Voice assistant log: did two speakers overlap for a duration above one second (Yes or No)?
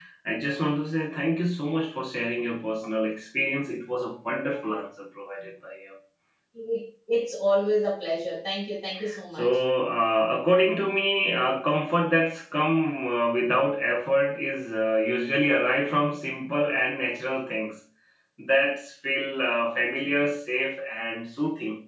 No